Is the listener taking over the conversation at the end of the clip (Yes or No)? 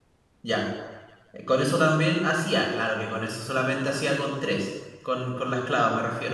No